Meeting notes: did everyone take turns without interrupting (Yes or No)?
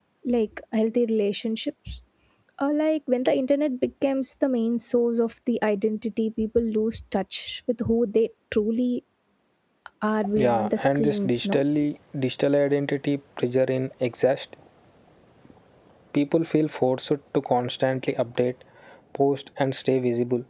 No